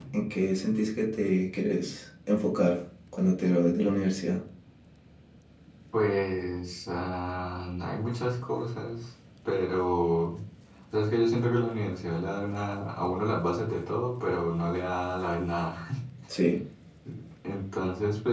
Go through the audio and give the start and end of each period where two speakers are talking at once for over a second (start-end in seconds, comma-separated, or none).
none